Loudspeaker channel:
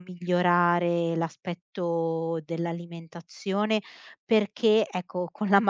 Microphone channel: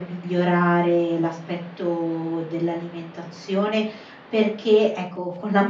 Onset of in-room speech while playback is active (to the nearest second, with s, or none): none